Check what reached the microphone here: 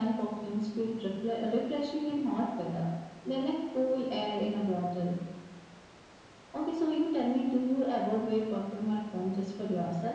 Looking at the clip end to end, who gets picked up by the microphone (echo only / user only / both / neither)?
echo only